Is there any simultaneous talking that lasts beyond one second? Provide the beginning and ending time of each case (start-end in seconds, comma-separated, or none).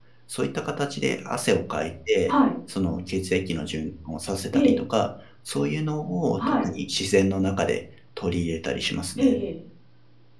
none